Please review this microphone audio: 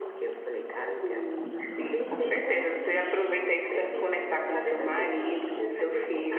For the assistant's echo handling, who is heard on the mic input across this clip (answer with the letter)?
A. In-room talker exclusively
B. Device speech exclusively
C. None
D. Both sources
B